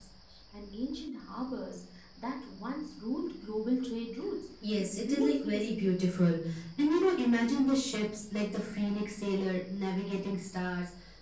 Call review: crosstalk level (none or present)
present